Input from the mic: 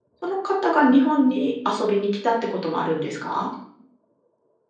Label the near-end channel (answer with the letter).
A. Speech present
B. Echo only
A